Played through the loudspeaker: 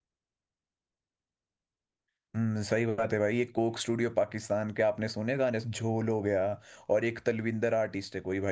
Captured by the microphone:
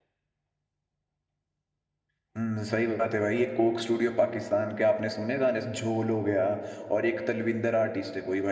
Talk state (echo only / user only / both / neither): echo only